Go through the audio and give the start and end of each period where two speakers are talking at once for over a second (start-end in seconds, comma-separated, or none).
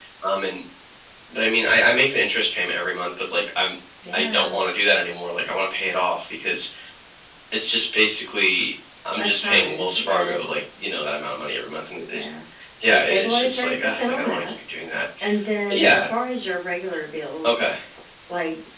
9.2-10.4, 12.8-14.5